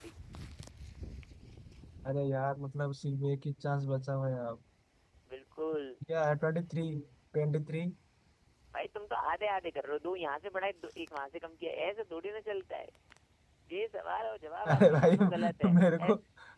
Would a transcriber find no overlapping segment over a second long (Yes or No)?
No